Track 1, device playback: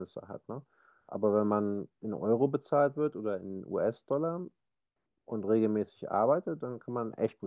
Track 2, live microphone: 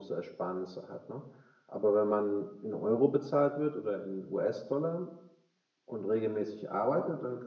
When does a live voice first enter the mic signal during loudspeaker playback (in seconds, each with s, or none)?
none